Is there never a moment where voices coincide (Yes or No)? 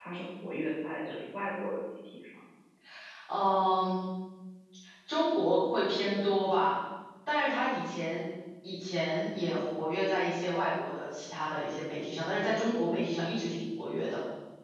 Yes